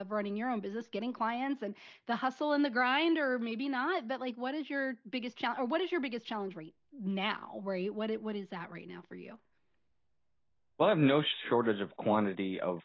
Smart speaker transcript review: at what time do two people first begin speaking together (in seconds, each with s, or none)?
none